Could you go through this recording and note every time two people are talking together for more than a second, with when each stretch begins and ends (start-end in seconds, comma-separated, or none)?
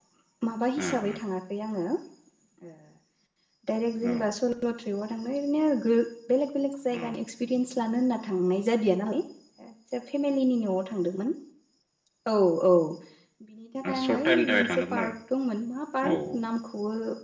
13.9-15.1